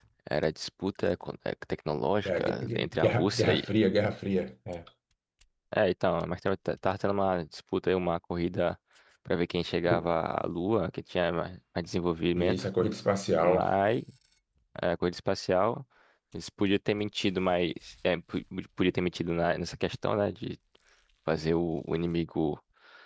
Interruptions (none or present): present